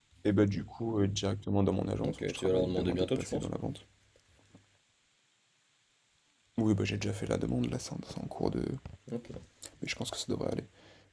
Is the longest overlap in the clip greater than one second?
Yes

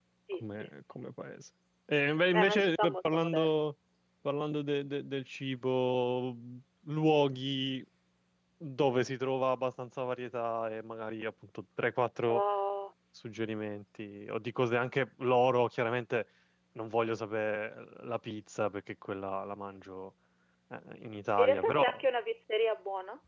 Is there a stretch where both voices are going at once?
Yes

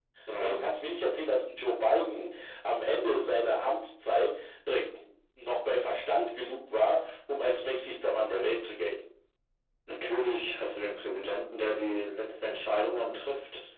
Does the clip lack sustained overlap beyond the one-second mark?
Yes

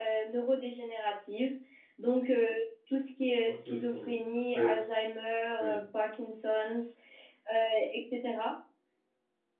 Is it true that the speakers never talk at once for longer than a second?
No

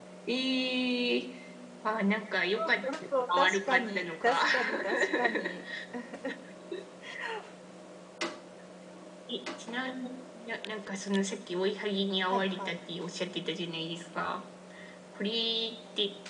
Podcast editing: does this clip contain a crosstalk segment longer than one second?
Yes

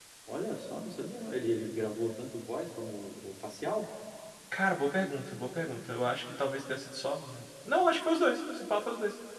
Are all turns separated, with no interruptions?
Yes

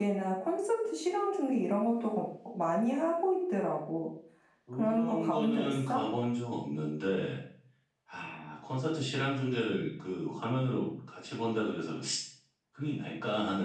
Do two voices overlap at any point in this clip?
Yes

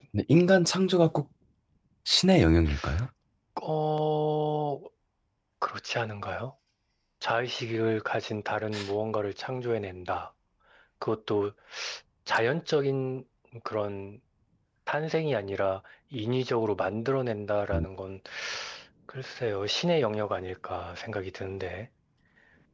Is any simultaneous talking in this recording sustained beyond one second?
No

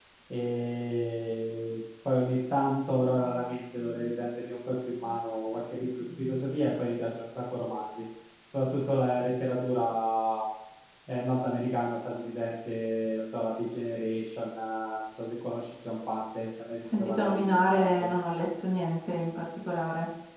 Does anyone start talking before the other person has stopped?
Yes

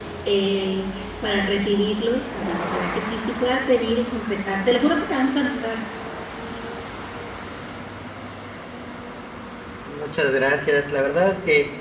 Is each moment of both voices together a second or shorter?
Yes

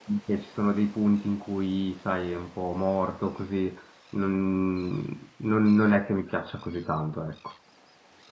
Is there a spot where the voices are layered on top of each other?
No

